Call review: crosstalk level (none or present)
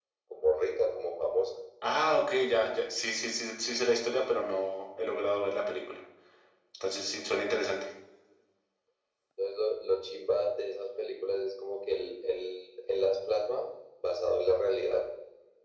none